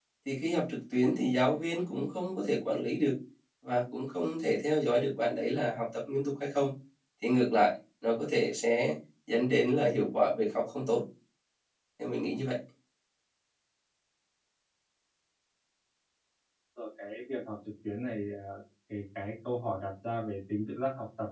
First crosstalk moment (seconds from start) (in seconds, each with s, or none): none